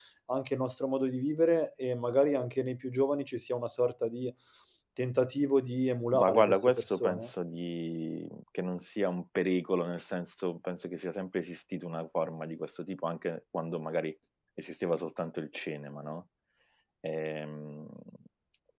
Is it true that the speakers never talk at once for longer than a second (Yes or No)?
No